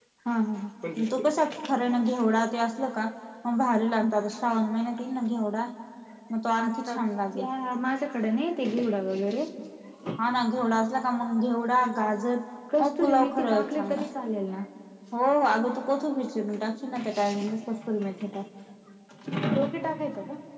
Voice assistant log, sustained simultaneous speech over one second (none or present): present